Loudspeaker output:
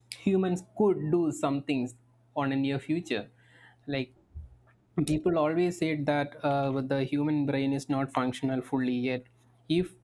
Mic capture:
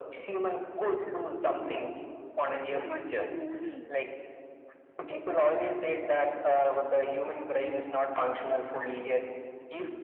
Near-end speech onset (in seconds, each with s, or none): 1.5 s